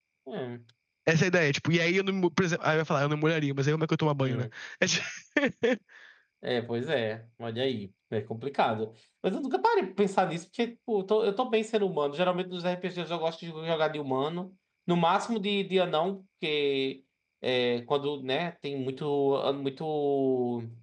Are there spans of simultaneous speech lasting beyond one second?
No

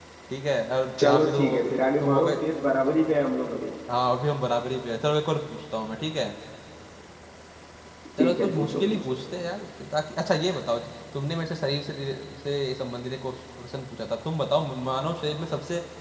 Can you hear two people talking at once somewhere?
Yes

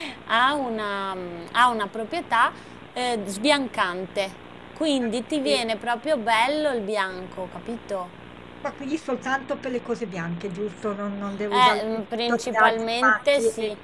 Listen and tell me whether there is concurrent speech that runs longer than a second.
Yes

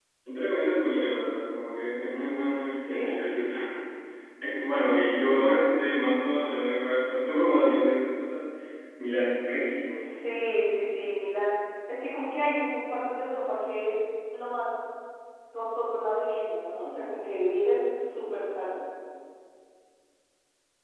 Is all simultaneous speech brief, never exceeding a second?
Yes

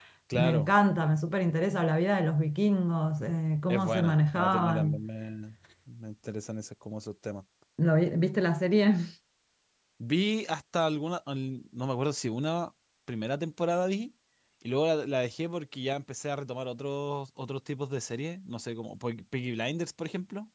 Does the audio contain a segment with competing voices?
Yes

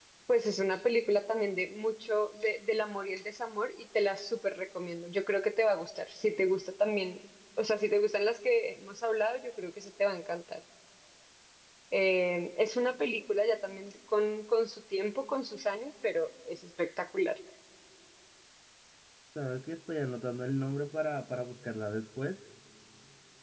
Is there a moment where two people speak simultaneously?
No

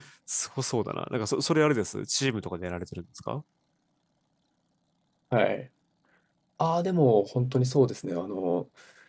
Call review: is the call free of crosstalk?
Yes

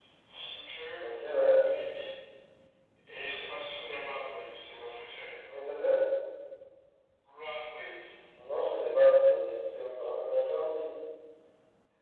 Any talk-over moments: No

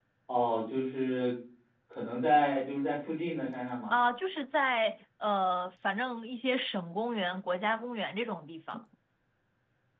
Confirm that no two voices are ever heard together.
Yes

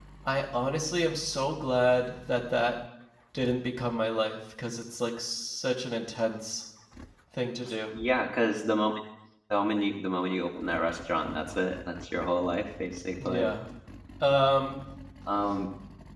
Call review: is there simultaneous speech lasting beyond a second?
No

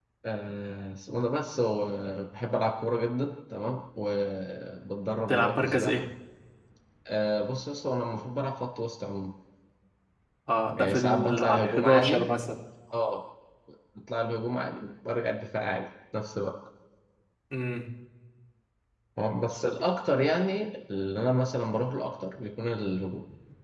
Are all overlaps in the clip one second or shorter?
No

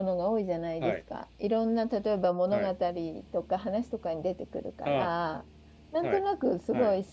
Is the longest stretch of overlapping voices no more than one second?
Yes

